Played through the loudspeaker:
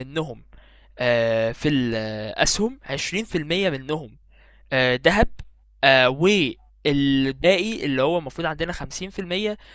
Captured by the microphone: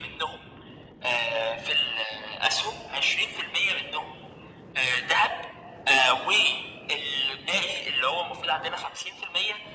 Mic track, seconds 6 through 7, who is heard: echo only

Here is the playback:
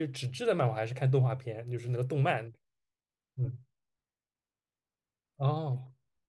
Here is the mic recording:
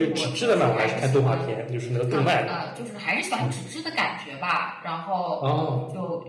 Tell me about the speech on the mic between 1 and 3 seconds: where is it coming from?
both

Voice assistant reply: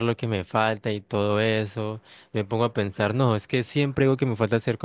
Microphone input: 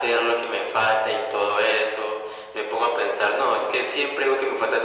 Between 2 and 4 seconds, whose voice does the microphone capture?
echo only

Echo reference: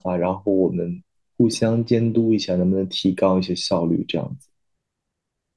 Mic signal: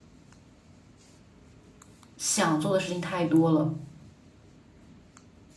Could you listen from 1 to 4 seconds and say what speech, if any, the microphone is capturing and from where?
user only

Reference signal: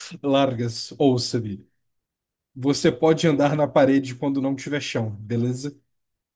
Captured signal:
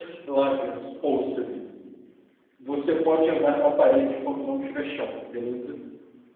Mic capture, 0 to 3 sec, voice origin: echo only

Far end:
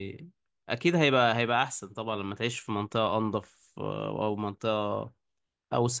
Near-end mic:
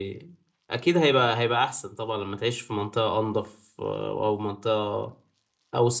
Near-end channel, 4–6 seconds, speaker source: echo only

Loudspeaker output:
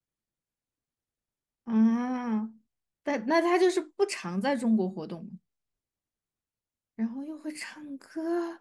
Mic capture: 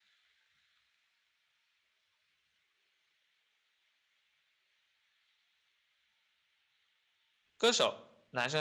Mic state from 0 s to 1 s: neither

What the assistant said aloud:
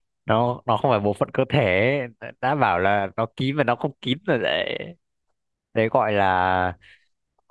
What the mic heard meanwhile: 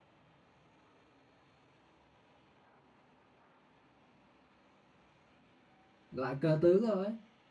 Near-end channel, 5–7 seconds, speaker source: user only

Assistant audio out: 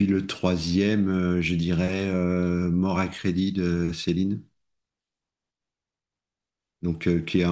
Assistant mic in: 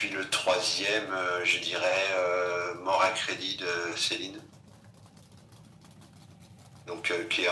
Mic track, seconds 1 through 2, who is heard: echo only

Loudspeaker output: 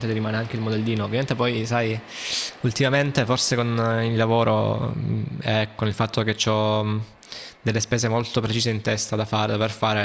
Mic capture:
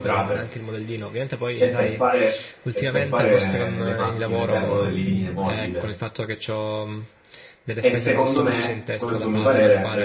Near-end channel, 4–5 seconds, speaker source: both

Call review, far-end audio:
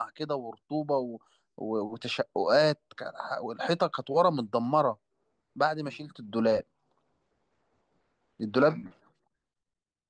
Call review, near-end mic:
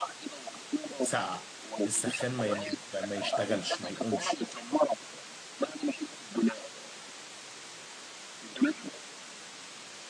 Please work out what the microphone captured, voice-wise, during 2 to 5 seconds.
both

